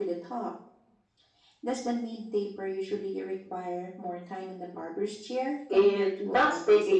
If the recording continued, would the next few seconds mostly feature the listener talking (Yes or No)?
Yes